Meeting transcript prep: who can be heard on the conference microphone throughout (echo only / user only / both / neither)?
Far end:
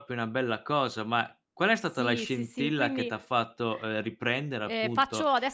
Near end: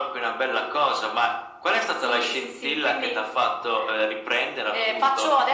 echo only